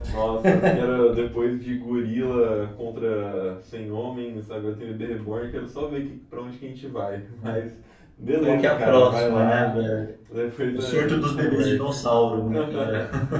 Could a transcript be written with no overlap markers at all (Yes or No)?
No